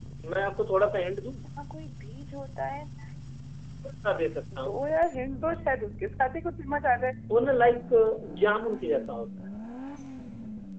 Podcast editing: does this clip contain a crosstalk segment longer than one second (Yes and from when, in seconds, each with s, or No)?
No